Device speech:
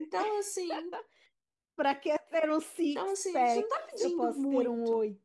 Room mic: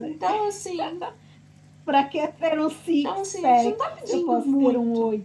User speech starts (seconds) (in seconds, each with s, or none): none